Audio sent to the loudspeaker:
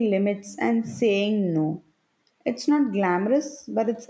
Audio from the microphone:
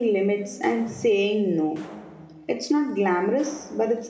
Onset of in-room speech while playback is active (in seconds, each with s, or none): none